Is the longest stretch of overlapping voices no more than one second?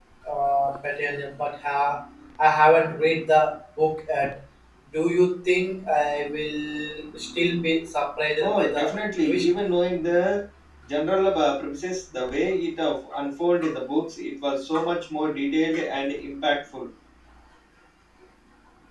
Yes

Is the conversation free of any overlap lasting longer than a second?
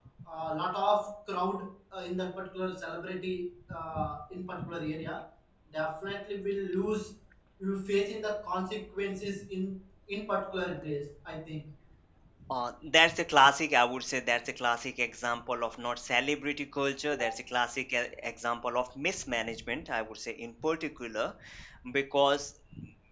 Yes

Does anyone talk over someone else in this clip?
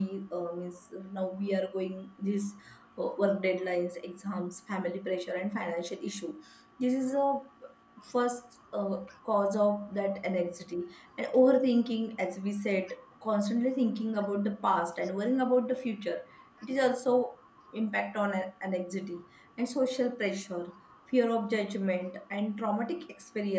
No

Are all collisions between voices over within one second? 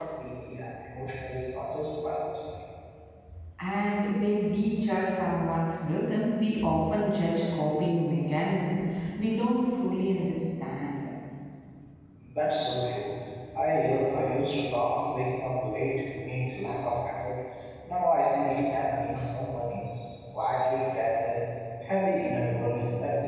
Yes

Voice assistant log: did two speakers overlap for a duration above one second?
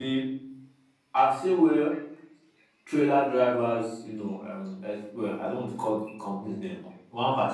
No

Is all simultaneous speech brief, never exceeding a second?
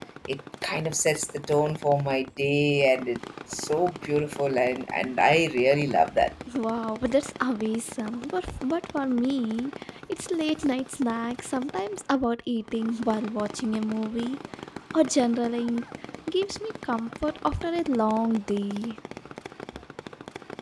Yes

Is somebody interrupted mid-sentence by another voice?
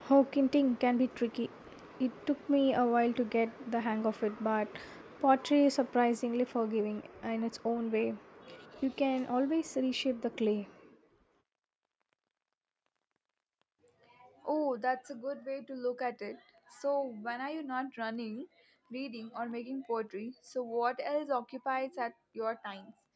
No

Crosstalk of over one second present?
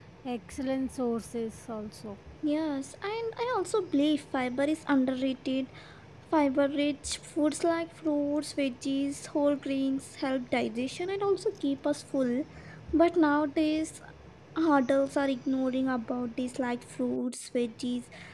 No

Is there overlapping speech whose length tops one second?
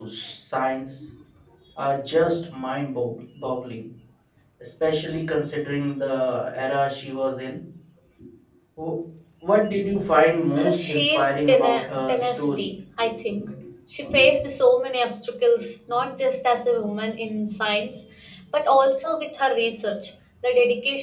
Yes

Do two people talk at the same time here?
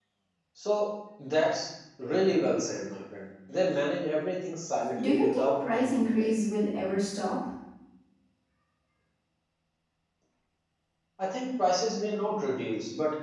Yes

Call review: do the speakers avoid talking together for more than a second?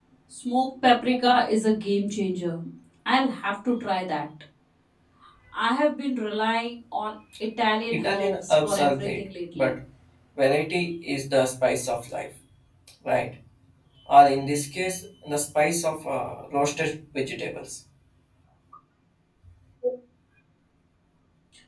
No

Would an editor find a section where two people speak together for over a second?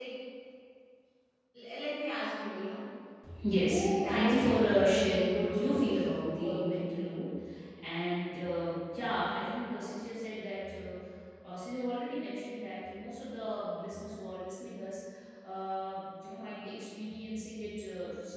Yes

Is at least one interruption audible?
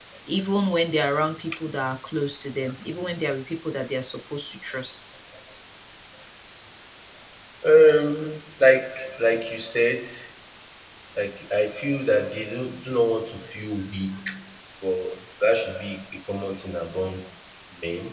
No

